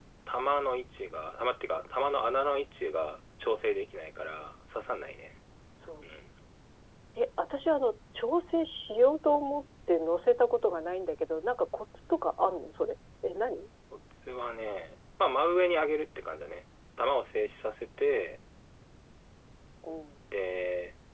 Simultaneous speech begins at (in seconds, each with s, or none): none